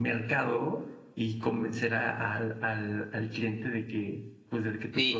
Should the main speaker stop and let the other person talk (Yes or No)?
Yes